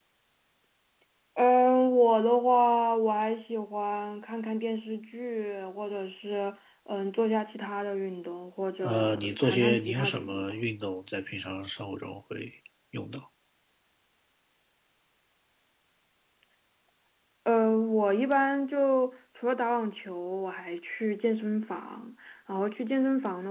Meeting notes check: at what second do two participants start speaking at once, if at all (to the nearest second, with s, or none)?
9 s